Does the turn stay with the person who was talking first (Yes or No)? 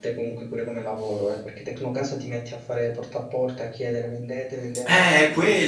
No